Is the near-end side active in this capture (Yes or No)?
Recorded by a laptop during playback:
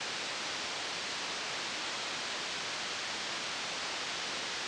No